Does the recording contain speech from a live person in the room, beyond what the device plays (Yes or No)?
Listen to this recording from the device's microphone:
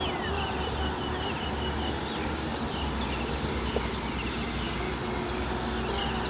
No